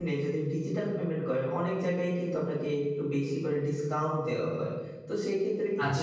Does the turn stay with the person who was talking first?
No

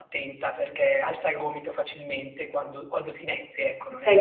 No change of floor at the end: No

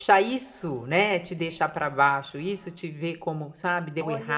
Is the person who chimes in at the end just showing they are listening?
No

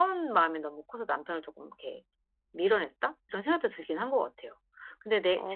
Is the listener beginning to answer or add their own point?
Yes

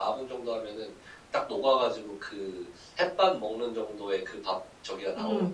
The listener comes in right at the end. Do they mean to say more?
Yes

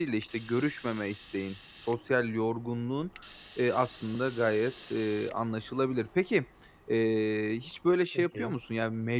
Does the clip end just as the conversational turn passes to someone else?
No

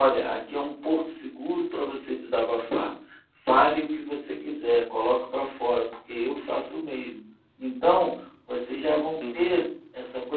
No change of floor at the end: Yes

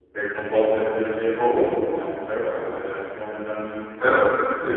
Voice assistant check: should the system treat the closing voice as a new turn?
Yes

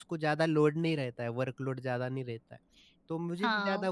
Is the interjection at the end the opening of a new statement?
Yes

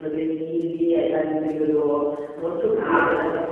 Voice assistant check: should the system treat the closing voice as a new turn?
Yes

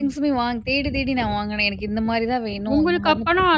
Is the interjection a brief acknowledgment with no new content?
No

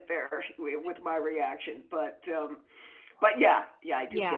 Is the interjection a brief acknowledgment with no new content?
No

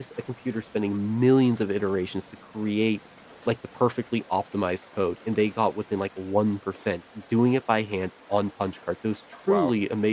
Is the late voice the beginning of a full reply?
No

